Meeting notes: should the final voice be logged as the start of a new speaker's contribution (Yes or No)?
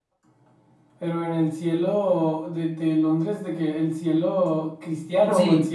Yes